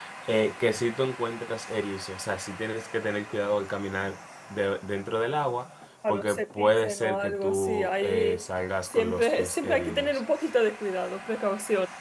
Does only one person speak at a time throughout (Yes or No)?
No